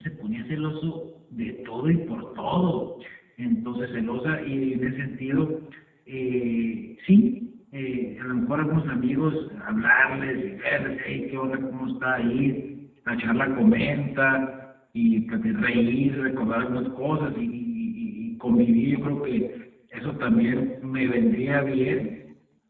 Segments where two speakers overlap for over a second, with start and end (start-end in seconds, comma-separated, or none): none